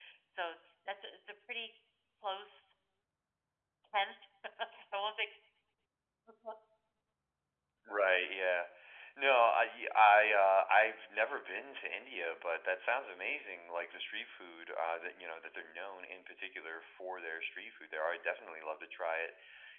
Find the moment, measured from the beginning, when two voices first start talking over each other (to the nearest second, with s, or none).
none